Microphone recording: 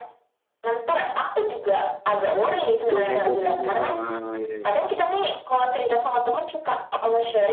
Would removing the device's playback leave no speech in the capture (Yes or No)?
No